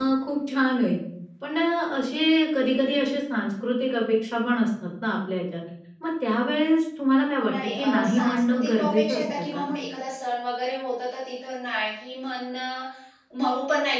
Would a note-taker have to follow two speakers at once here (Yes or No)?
Yes